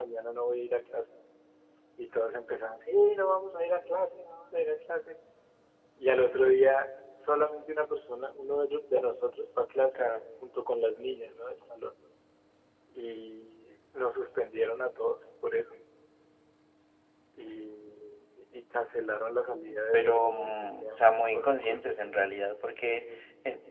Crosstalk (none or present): present